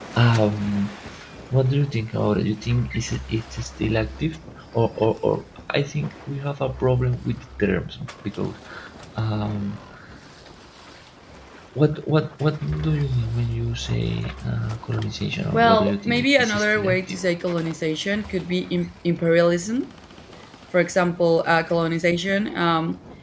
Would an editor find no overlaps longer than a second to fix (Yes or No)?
No